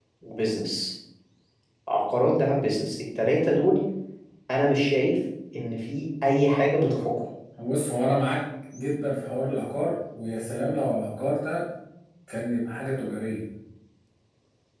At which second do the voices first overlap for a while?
none

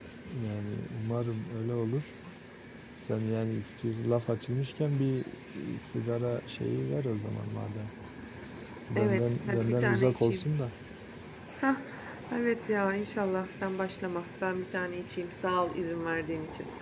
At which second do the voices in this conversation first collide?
9 s

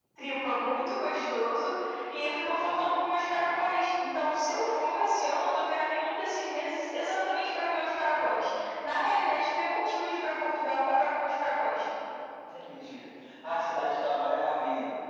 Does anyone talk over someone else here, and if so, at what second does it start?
none

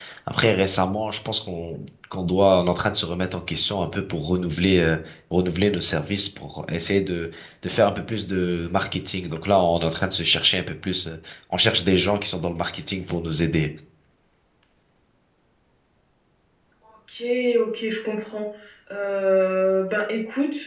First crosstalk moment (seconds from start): none

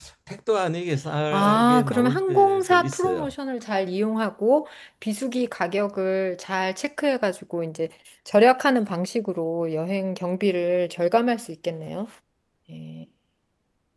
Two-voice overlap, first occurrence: 1 s

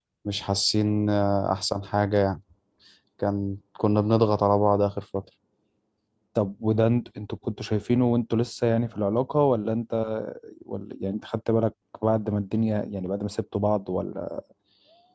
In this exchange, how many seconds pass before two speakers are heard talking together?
none

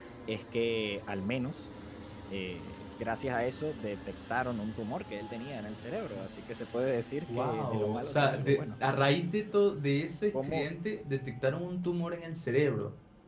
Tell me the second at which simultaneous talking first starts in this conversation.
7 s

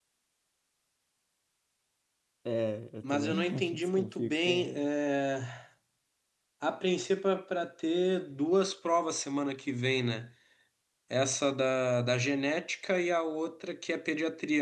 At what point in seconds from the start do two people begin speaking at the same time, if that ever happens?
3 s

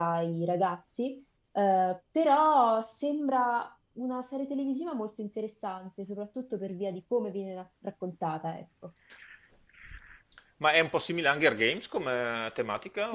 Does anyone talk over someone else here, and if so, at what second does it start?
none

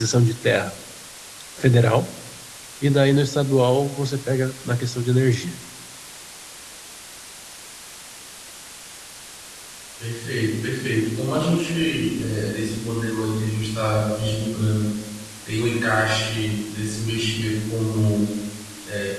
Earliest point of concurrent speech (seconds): none

